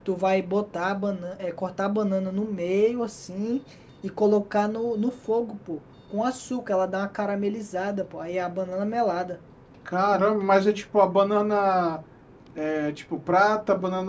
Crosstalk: none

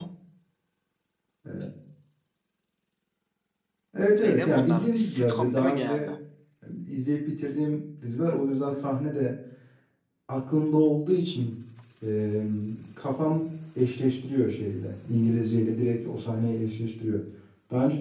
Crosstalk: present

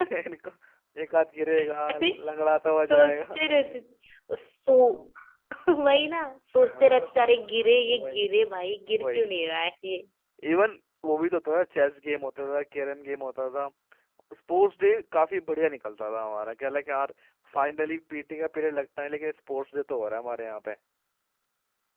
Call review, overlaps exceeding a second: none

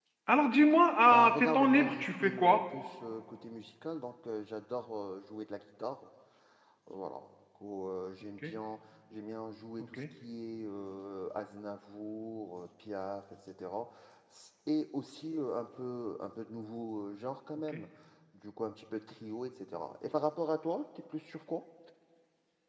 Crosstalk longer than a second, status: present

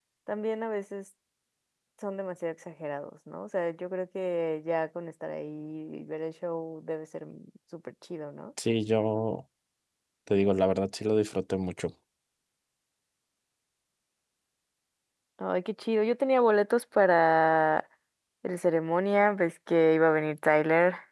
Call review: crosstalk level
none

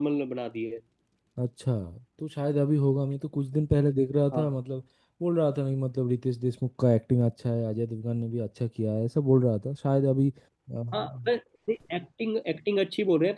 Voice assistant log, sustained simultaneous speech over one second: none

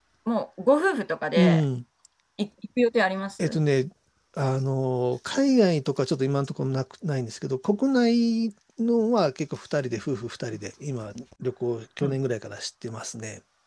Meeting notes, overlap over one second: none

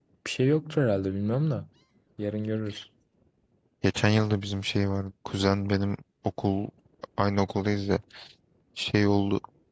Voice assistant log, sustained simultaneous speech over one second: none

